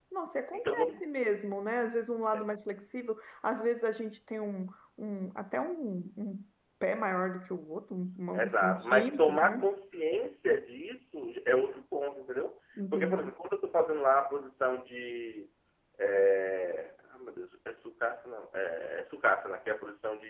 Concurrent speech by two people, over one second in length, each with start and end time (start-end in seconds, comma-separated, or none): 8.3-9.6